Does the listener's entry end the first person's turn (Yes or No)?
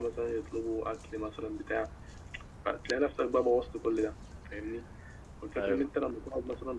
No